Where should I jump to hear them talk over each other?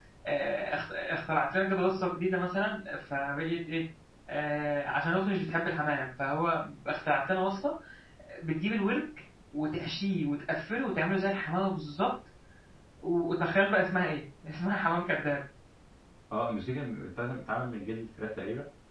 none

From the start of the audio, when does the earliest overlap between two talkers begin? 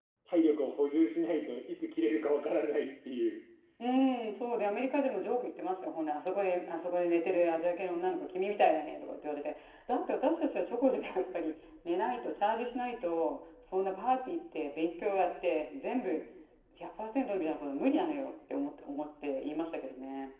none

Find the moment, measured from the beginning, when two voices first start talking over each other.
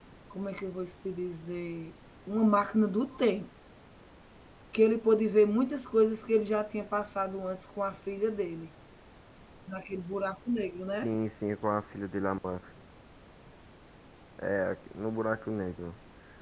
none

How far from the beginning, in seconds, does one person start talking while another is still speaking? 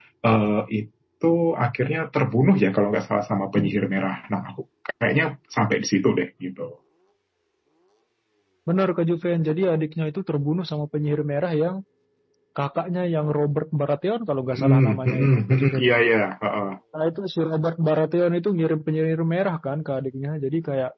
14.5 s

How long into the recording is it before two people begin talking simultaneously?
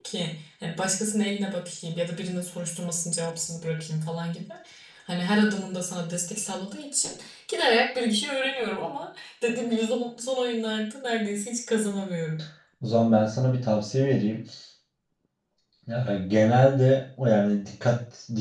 none

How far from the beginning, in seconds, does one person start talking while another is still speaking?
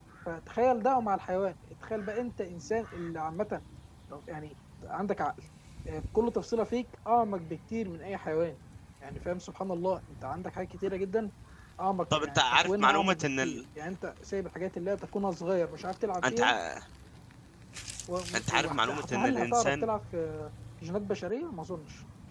12.2 s

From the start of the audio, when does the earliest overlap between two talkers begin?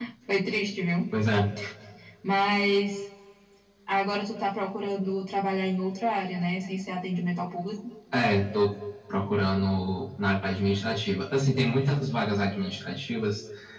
none

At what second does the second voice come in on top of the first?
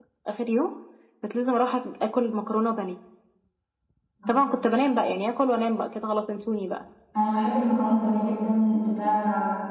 none

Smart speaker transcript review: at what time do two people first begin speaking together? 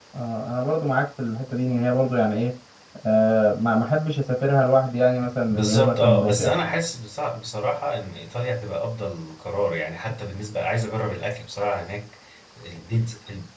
5.5 s

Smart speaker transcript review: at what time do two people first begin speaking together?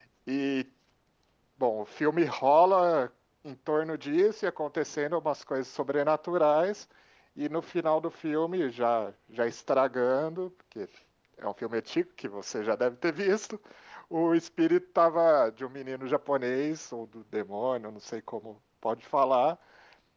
none

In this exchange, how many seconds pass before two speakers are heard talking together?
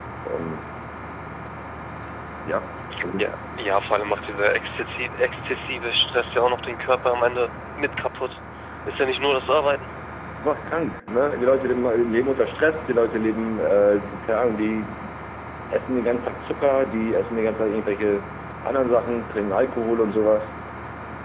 none

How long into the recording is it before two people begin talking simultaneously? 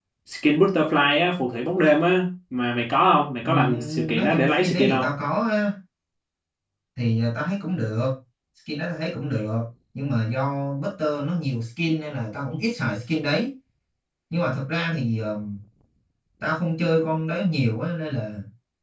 3.4 s

